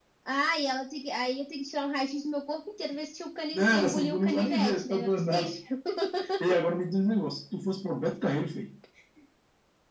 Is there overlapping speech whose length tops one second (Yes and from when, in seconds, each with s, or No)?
Yes, from 3.5 s